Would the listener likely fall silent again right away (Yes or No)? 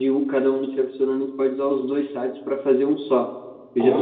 Yes